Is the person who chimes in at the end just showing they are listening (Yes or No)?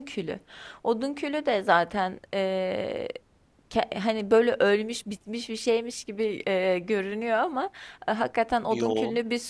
Yes